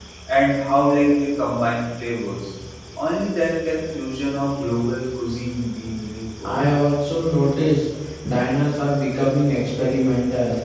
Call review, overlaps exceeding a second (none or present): none